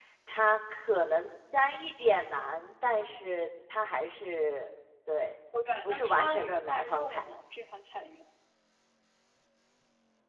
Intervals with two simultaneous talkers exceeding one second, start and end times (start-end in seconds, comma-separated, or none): 5.9-7.2